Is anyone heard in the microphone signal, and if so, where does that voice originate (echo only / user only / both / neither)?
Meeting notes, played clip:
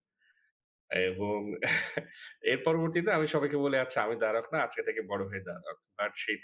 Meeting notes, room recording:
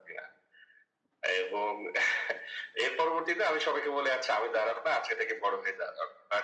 echo only